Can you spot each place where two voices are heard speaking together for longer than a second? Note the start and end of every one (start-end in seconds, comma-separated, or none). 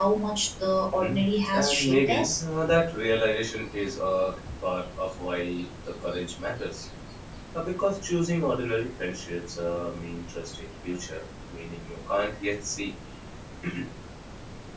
0.9-2.4